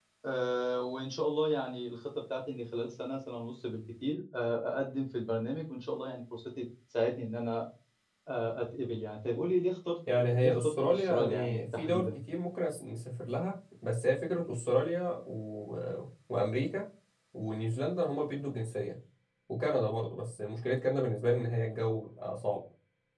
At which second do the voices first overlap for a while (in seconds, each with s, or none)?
10.1 s